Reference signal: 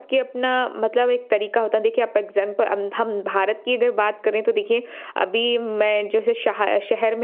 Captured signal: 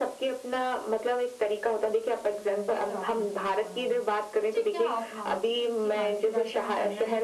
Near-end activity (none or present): present